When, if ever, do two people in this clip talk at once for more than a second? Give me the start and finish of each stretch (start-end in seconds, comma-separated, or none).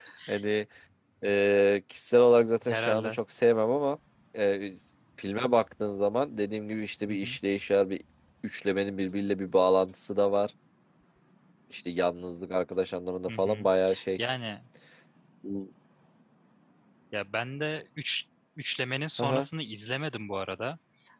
none